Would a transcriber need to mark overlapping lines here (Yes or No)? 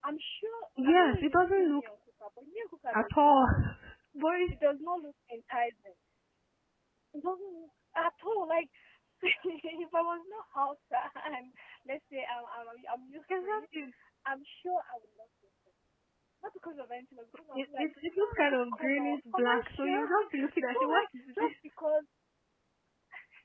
Yes